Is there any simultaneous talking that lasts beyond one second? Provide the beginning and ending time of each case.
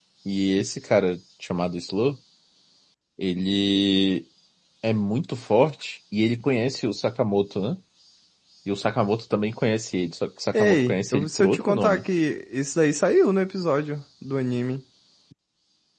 10.5-12.0

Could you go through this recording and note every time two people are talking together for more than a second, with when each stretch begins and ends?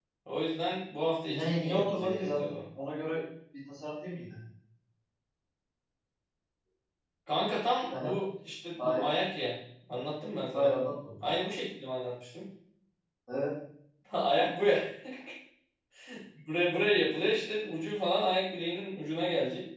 1.3-2.5

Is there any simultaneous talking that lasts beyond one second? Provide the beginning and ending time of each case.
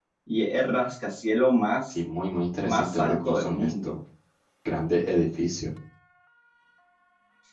2.6-3.9

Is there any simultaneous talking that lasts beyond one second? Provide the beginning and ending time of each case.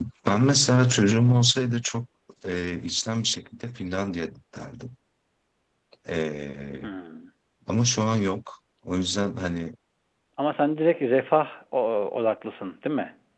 none

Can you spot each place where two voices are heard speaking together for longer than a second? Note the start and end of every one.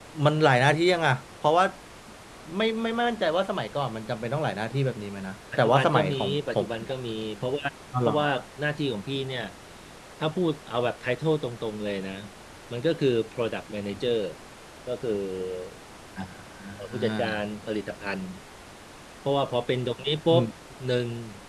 5.6-6.9

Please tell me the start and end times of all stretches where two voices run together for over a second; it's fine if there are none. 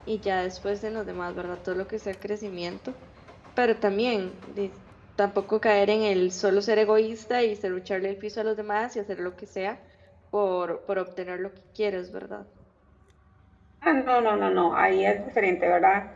none

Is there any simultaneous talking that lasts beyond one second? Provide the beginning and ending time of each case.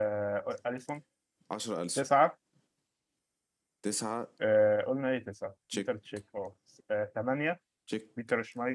none

